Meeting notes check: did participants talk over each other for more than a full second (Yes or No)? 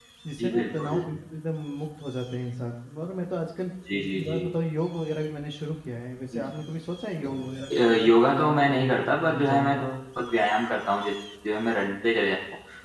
Yes